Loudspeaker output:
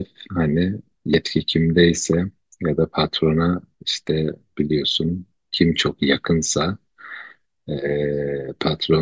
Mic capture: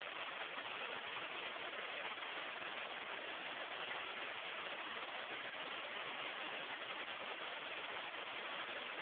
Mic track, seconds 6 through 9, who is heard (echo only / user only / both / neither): neither